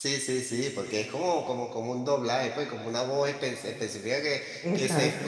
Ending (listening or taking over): listening